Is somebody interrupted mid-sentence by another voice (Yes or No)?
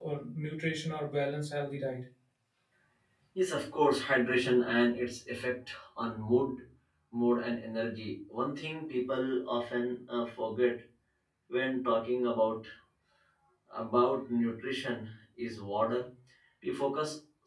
No